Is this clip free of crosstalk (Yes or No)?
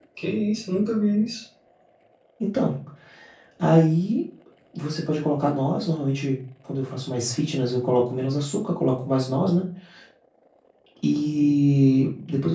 Yes